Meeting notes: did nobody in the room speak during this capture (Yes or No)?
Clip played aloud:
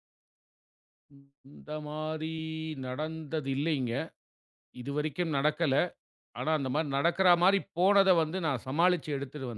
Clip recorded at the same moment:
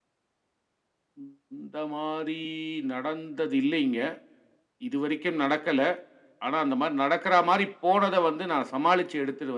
Yes